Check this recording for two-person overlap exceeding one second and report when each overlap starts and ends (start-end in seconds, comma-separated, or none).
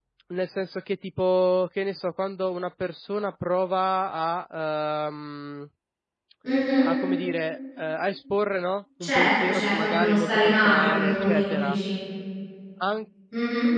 9.0-11.8